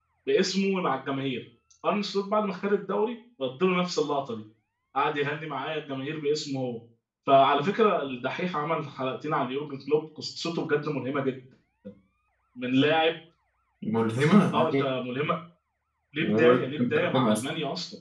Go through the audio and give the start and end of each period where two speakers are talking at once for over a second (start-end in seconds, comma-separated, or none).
16.2-17.4